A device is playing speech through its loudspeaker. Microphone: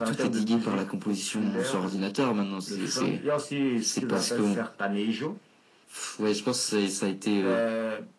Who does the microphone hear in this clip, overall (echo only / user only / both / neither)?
echo only